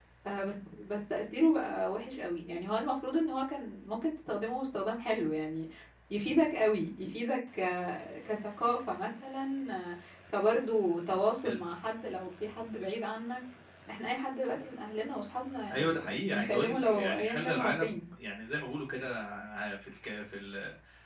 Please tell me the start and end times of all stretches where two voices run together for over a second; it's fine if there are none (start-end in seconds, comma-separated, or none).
15.7-18.0